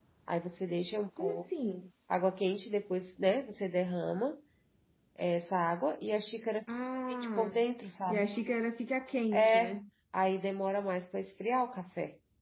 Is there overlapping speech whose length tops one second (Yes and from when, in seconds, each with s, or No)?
No